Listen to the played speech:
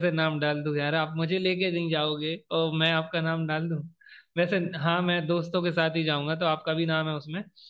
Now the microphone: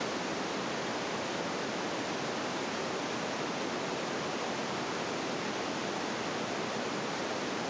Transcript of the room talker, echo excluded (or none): none